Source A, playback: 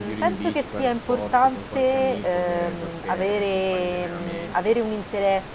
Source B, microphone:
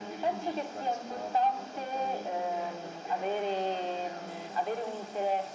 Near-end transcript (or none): none